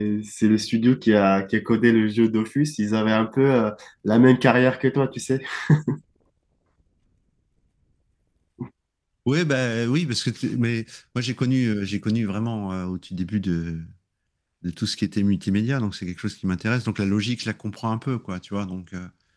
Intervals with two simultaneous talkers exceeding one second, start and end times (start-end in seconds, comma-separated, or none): none